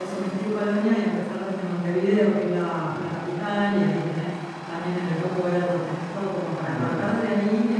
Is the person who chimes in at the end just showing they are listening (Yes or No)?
Yes